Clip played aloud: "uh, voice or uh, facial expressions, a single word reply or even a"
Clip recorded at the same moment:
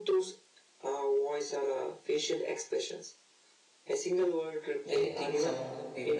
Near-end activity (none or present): present